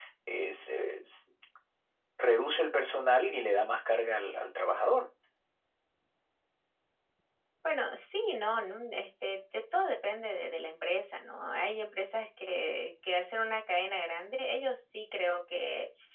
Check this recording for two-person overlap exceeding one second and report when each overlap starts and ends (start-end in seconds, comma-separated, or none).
none